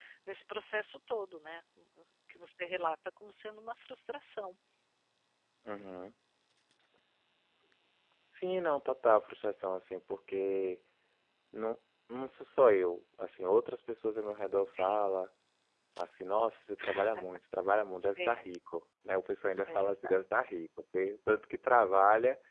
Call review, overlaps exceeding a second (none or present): none